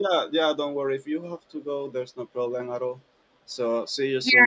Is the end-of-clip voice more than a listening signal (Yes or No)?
Yes